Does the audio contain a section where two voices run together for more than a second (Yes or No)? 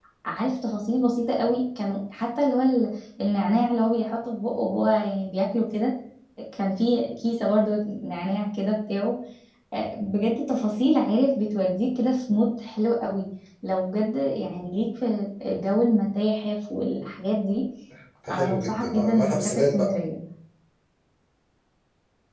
Yes